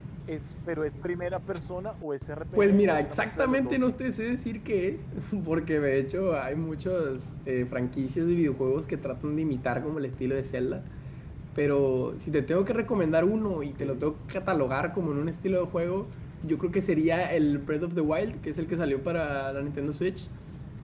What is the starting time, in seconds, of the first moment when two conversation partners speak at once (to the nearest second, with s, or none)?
3 s